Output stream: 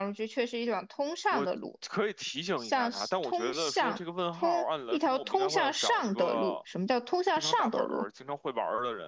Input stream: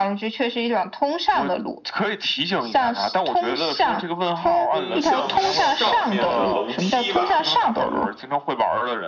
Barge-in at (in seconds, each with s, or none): 4.7 s